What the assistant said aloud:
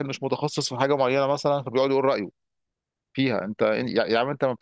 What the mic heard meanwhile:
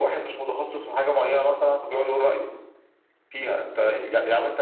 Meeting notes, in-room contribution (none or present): none